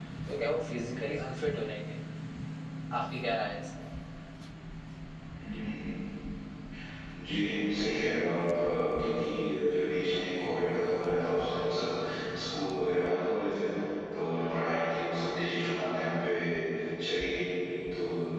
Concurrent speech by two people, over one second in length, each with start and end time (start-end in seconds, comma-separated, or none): none